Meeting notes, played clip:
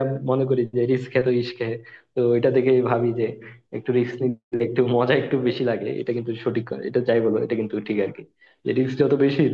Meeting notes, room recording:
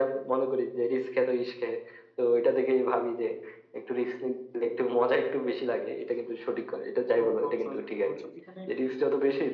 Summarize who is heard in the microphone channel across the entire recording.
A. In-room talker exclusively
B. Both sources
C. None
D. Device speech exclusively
B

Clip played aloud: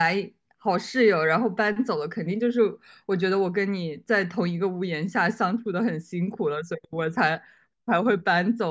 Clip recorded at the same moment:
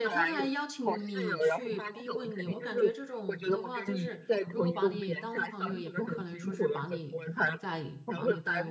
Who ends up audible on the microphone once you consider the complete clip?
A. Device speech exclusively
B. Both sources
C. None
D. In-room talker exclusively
B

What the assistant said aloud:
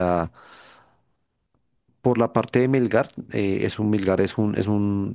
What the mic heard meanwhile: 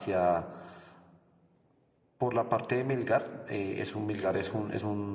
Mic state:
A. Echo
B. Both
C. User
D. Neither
B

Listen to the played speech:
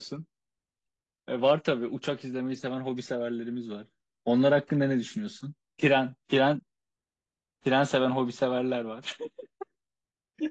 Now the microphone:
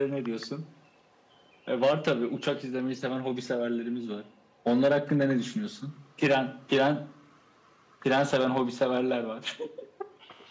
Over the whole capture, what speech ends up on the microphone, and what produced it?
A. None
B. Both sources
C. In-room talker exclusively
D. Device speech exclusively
D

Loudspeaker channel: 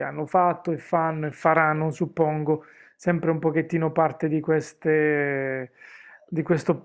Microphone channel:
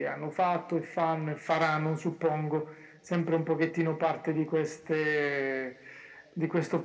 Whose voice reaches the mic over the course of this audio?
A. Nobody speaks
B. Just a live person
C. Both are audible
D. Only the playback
D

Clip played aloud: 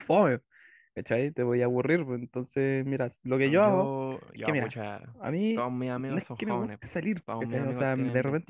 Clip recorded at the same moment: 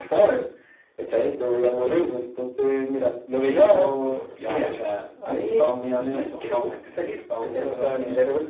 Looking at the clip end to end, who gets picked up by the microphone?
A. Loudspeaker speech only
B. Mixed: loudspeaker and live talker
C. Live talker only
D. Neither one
A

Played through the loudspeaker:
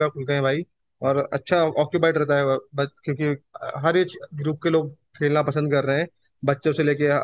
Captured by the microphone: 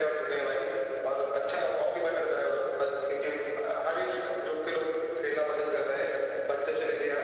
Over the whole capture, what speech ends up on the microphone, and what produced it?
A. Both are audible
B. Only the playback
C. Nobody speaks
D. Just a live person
B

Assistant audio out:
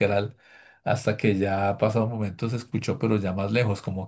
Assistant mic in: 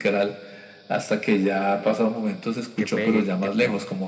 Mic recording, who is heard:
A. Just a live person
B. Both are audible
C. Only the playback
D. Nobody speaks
B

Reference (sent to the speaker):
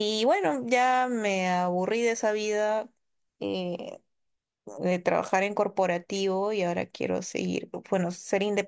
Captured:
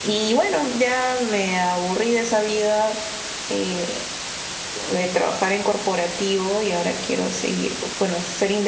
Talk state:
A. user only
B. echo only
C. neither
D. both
B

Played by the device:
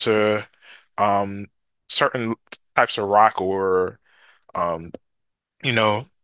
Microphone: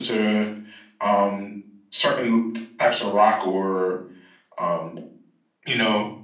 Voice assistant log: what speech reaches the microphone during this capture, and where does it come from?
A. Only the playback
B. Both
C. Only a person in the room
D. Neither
A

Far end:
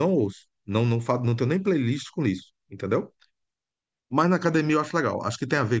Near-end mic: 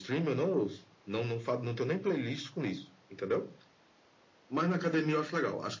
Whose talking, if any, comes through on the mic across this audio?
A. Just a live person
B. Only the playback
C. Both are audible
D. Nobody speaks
B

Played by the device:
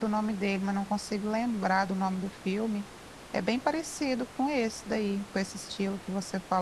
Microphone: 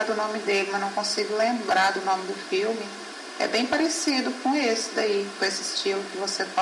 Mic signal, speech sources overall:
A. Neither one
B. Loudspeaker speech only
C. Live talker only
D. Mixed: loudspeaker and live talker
B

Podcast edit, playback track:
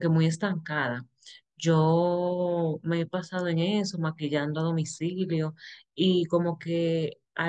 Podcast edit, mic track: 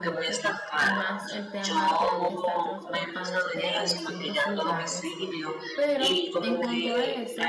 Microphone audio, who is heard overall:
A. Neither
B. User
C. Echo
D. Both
D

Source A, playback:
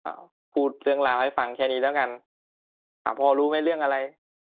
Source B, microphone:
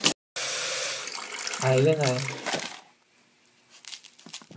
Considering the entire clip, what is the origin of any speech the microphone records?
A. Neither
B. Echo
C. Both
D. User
D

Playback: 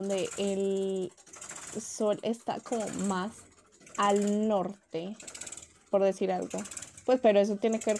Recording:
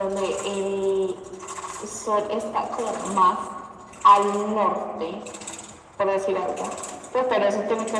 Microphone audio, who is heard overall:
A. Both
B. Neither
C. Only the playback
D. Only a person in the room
C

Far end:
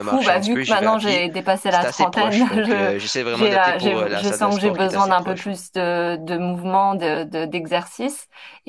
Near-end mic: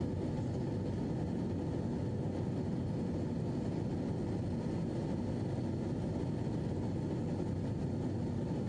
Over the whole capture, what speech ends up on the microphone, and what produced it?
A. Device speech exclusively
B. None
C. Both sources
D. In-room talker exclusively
B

